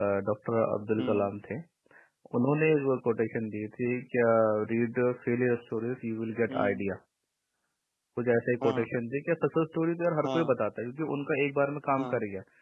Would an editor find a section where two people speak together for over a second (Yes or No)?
No